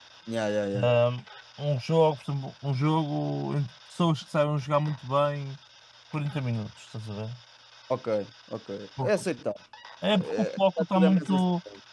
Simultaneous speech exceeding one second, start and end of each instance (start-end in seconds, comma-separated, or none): 10.1-11.4